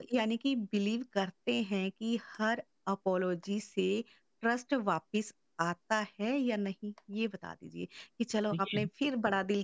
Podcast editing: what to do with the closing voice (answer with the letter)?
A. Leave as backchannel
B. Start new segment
A